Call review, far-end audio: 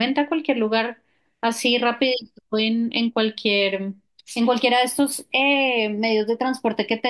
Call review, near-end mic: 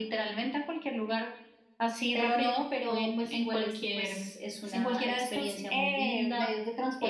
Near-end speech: present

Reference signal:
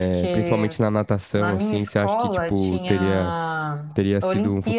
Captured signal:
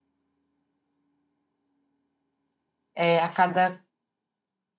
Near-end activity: present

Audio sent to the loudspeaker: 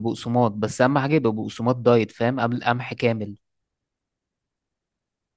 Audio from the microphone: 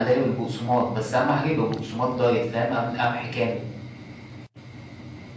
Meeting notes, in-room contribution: none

